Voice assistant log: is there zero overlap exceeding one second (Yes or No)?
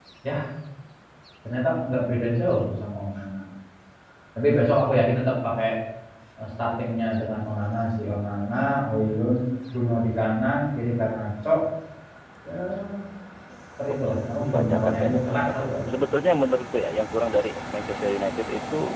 No